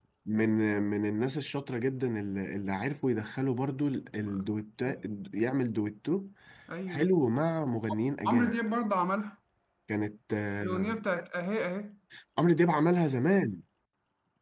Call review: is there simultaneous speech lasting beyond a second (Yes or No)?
No